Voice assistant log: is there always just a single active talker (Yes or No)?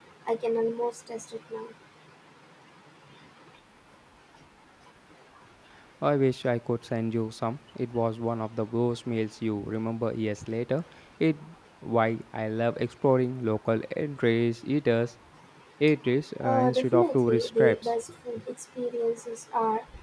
No